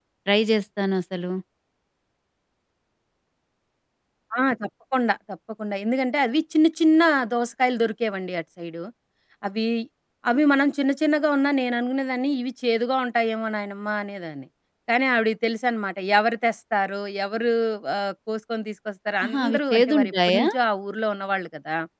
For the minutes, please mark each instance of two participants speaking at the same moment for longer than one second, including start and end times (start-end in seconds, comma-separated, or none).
19.2-20.4